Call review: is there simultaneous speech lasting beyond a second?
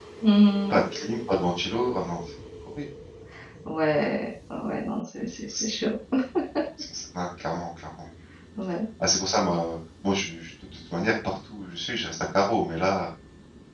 No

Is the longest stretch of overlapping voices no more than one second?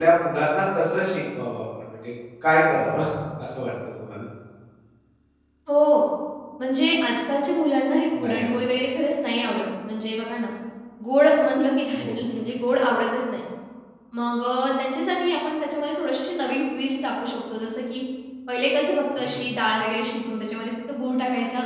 Yes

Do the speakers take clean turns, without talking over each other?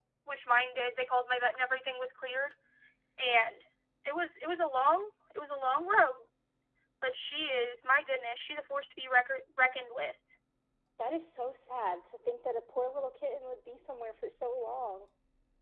Yes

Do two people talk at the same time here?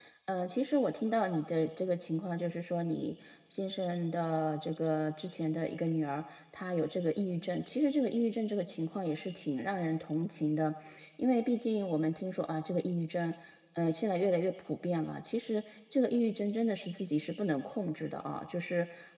No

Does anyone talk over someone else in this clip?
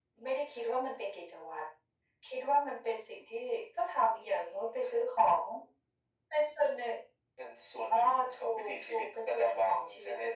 Yes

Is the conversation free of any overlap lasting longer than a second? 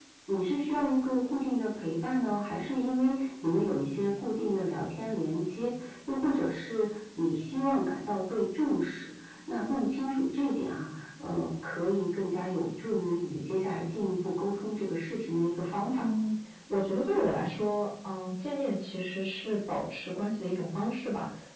Yes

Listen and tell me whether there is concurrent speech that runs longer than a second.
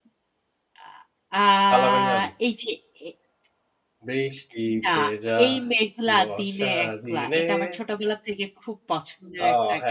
Yes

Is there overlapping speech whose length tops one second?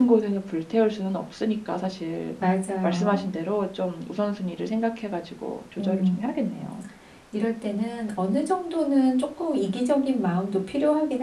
No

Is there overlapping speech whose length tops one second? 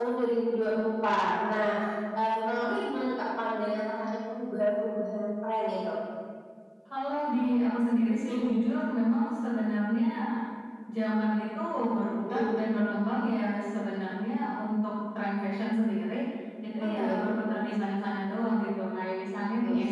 No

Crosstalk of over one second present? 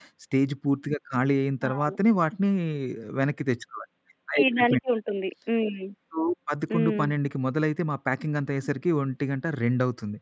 No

